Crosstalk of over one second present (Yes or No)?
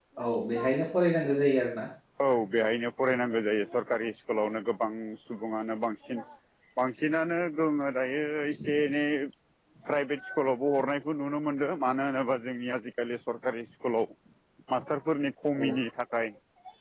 No